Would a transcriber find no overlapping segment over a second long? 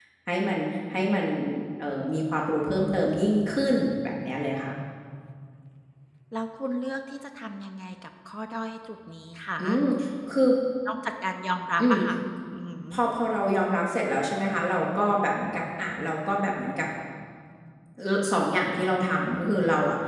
Yes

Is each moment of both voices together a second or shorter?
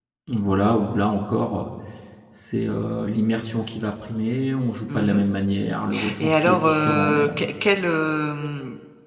No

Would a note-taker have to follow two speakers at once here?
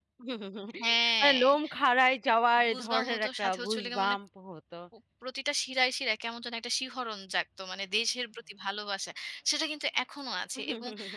Yes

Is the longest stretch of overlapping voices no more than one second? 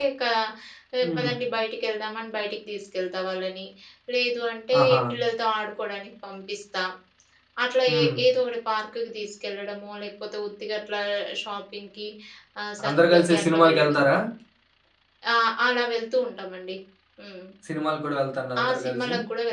No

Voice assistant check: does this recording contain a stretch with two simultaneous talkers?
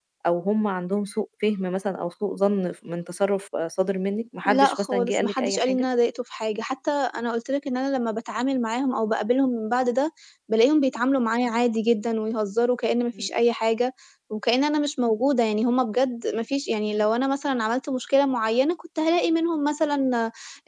Yes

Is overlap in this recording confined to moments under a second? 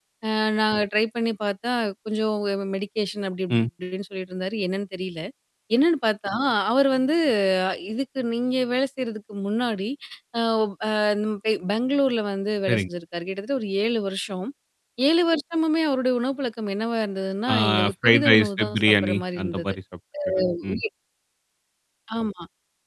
No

